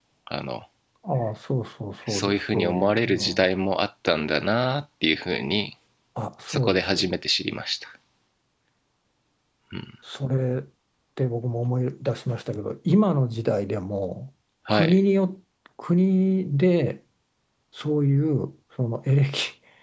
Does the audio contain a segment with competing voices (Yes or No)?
Yes